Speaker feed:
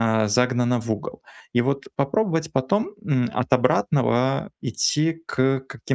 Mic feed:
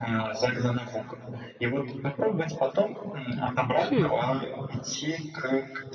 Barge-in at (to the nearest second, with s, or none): 4 s